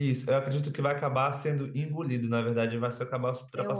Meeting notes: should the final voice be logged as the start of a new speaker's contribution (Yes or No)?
No